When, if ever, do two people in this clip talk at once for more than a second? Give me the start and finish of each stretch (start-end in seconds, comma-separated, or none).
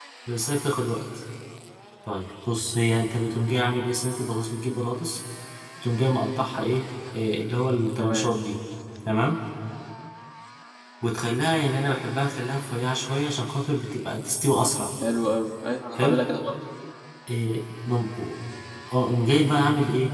none